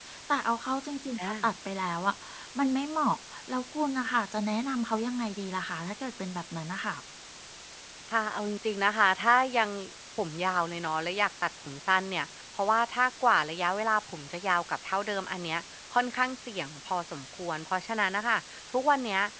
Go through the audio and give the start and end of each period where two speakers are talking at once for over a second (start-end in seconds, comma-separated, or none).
none